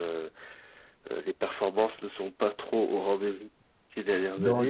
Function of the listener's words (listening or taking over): taking over